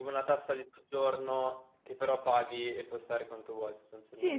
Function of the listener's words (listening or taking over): taking over